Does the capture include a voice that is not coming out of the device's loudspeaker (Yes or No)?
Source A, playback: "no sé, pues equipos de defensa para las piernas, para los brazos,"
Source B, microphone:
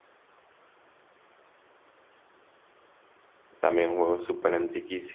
Yes